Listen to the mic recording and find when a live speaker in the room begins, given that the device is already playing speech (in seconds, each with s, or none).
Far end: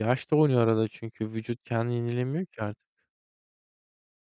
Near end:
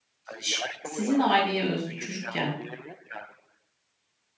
0.3 s